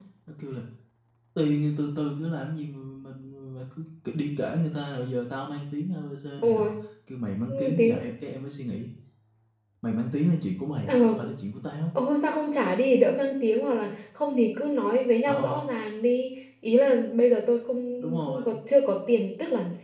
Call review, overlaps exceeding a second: none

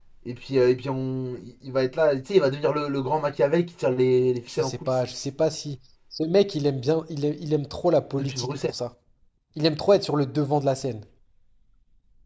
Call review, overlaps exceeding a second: none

